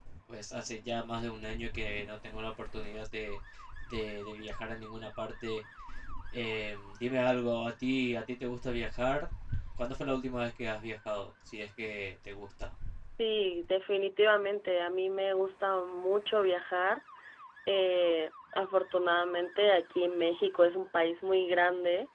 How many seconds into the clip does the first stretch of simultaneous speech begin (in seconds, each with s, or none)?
none